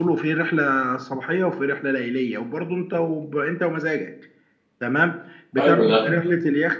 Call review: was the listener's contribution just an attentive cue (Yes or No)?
Yes